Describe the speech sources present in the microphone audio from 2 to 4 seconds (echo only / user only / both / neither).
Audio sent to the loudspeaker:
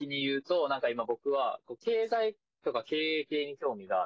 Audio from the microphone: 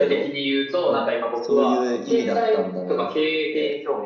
both